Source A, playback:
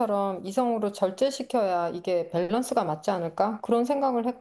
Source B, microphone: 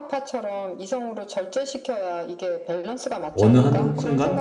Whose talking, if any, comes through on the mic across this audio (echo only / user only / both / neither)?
both